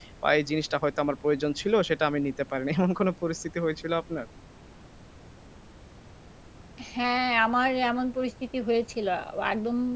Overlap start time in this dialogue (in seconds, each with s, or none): none